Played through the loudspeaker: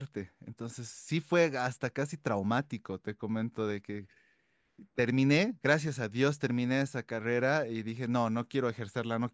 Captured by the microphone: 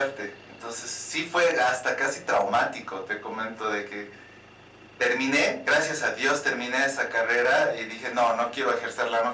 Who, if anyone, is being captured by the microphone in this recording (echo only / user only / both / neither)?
echo only